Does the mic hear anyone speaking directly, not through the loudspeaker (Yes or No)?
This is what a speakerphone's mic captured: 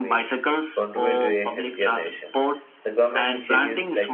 Yes